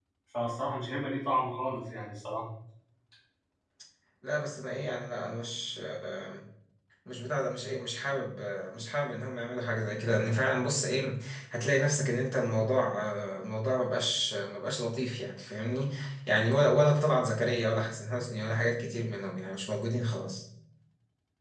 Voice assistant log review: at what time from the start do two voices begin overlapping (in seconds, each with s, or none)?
none